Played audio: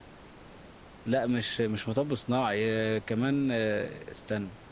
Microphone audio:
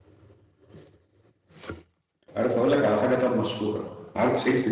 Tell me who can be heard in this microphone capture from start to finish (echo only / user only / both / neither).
user only